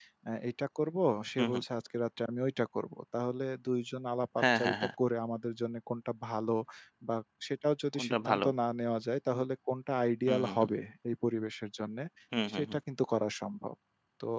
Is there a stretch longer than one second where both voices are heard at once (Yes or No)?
No